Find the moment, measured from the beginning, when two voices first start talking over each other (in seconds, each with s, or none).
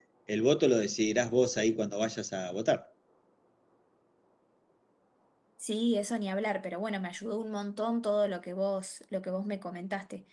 none